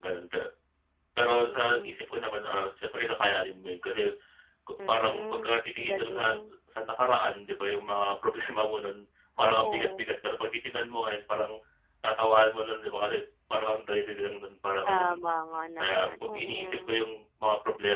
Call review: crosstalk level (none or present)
present